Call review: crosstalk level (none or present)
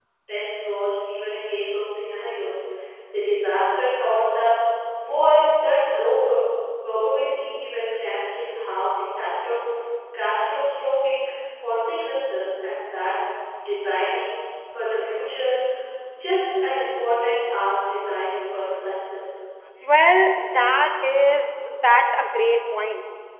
none